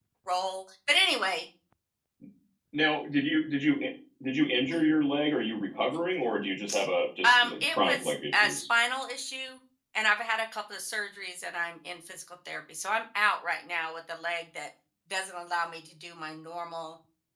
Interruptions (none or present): present